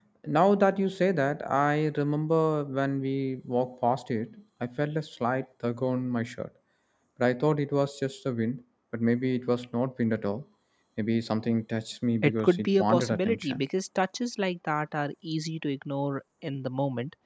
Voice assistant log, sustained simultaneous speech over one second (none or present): present